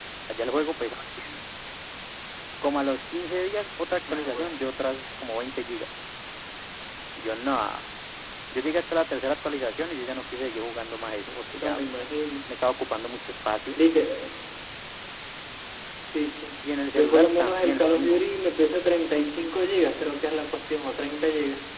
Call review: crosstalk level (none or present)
present